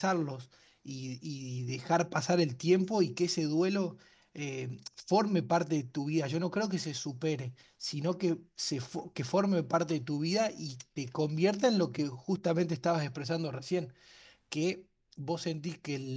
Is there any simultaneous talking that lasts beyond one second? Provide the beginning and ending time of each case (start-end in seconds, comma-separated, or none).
none